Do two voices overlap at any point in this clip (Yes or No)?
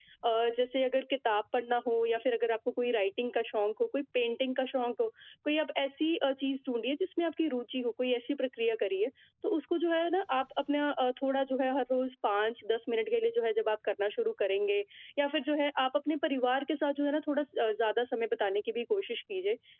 No